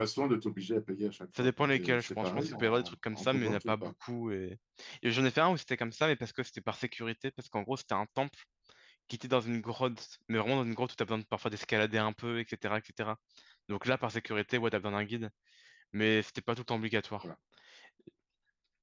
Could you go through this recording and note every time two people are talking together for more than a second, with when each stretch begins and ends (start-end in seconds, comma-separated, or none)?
1.4-3.9